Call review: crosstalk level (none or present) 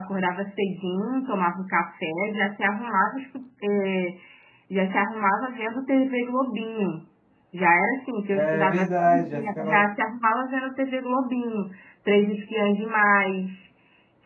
present